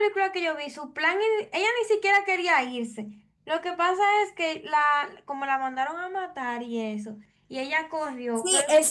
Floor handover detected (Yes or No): Yes